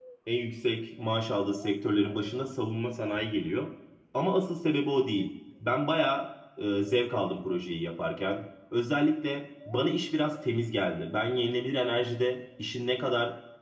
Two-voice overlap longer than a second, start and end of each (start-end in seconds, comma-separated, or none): none